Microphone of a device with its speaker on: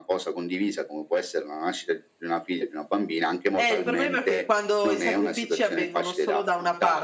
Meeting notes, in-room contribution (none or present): present